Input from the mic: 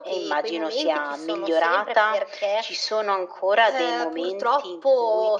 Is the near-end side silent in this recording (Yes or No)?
Yes